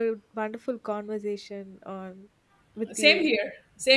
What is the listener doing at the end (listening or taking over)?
taking over